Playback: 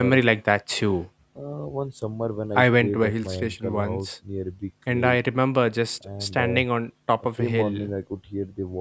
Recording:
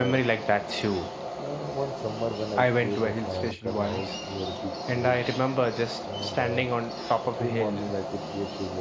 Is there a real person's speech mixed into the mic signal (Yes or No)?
No